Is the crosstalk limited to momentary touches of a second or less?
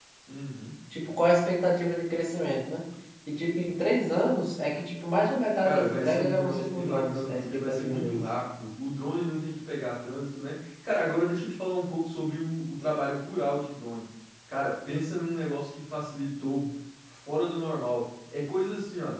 No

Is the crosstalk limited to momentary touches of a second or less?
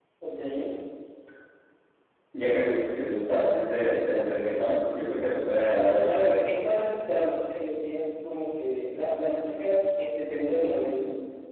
Yes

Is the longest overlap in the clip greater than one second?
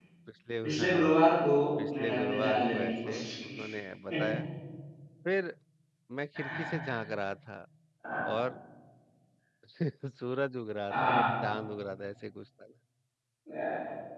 Yes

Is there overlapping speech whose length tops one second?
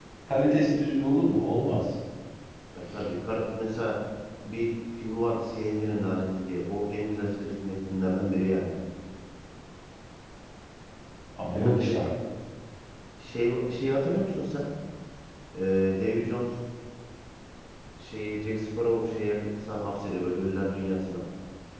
No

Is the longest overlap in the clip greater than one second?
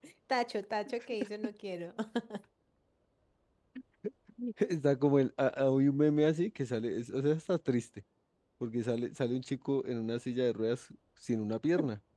No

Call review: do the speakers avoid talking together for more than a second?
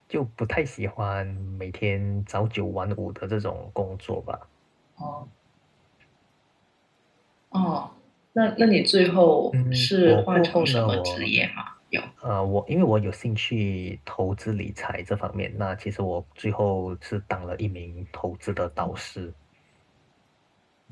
No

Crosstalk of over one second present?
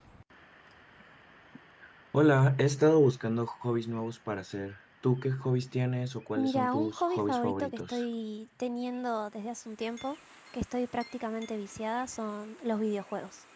Yes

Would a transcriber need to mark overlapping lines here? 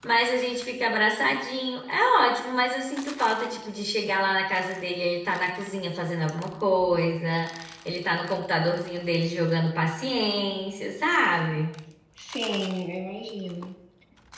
No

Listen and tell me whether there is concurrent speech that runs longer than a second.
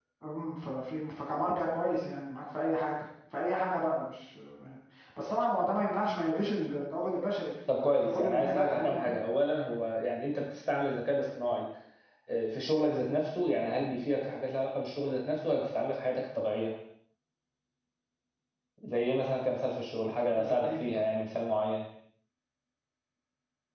Yes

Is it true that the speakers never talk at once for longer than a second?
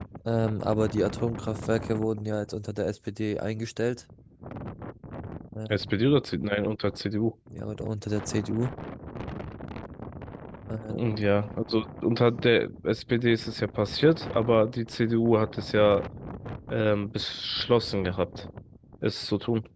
Yes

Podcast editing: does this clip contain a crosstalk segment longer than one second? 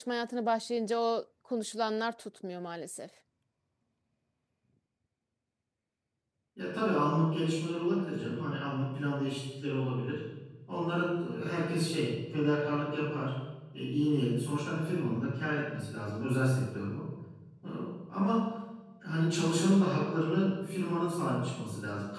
No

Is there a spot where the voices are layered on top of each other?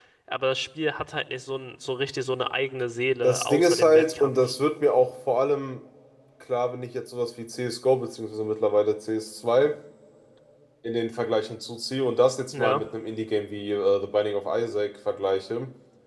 Yes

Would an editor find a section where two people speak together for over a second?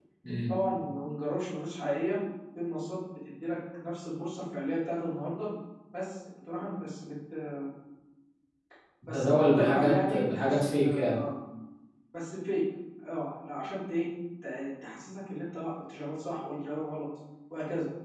Yes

